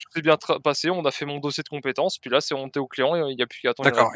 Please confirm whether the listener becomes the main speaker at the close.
Yes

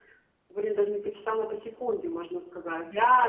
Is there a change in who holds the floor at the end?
Yes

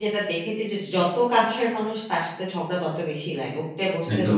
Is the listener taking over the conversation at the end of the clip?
Yes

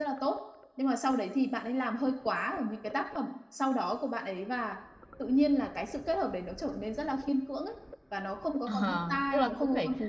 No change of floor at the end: No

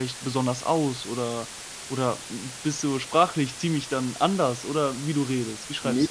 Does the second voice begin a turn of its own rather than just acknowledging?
Yes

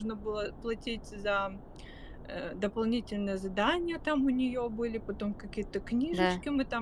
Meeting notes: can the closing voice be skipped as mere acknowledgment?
Yes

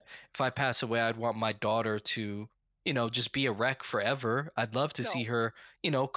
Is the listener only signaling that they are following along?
Yes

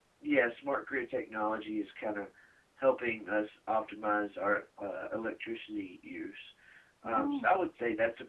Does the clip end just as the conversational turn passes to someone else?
No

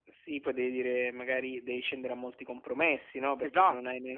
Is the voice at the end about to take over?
No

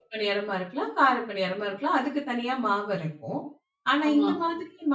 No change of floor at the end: Yes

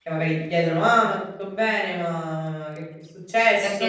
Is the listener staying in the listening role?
No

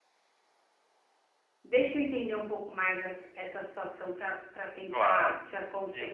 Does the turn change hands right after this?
Yes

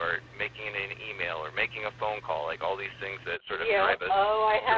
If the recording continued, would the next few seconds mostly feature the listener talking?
Yes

